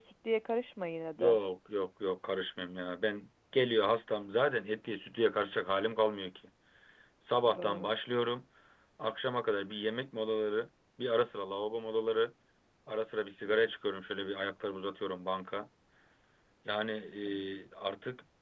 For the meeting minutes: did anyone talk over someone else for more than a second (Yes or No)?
No